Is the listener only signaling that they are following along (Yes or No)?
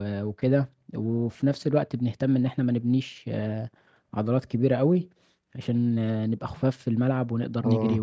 No